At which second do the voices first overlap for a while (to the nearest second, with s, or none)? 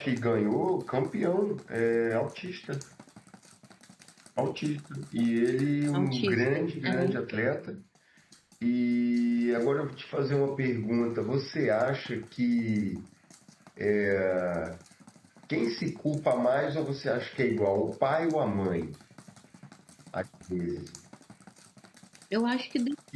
6 s